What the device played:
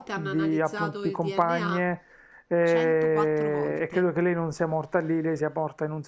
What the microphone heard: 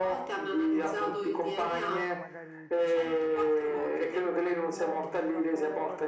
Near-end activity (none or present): present